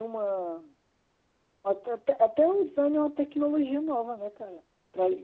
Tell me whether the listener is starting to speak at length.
Yes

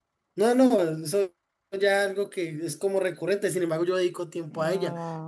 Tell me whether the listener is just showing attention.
No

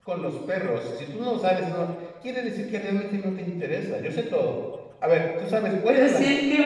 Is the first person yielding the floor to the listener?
Yes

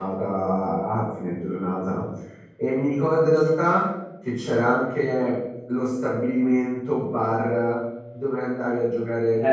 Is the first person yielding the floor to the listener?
Yes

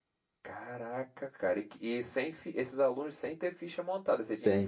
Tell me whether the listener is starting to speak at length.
Yes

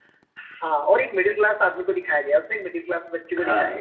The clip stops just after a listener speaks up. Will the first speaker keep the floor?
No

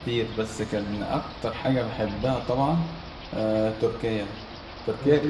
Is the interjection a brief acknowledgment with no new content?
Yes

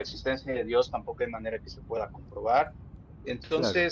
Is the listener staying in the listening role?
Yes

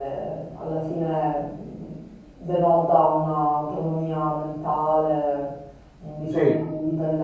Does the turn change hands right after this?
No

